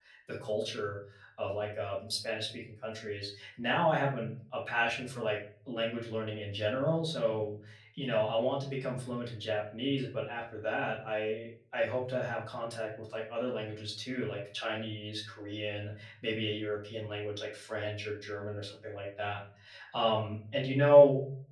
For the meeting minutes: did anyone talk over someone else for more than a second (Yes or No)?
No